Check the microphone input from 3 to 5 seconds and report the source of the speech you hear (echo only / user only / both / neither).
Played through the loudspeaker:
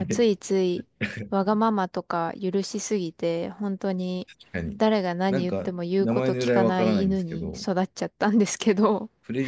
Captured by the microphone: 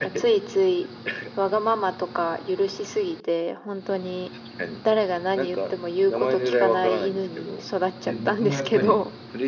echo only